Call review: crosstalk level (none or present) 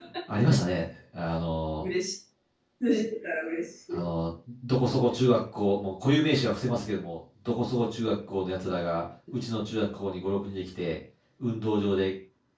none